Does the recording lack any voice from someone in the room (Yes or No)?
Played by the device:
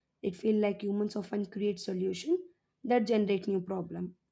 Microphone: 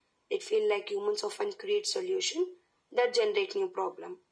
Yes